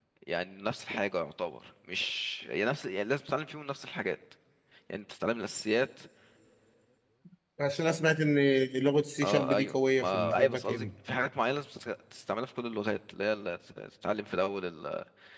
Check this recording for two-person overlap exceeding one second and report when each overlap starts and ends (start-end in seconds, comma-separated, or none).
9.2-10.8